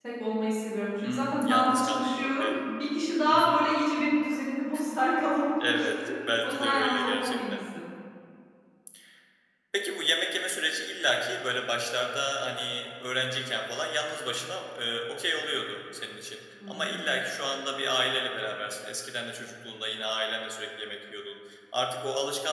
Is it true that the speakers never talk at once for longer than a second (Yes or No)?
No